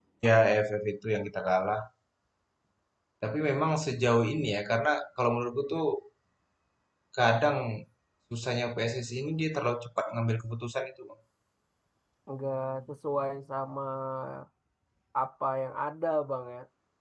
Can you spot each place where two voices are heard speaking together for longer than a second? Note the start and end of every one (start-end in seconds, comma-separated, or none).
none